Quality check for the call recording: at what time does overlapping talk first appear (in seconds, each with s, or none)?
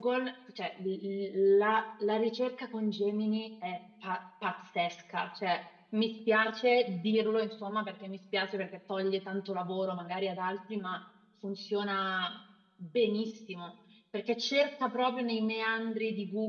none